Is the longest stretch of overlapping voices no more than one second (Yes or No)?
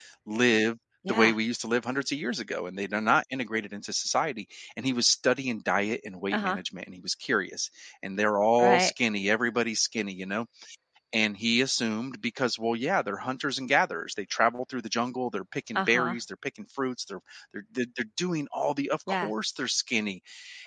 Yes